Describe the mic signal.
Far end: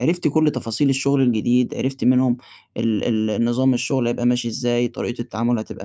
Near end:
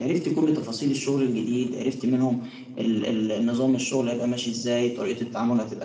echo only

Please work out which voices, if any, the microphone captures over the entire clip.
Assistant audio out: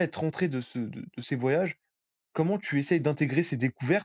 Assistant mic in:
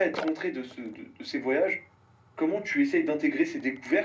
echo only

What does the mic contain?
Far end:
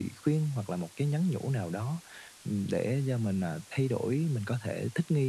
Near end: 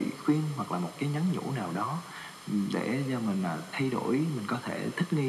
echo only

